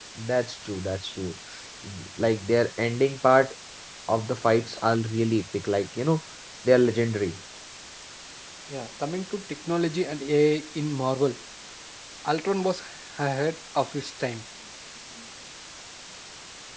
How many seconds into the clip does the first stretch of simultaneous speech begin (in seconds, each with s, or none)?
none